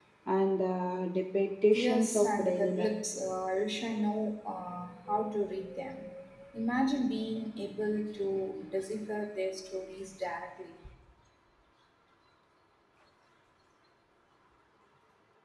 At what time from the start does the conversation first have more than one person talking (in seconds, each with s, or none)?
1.7 s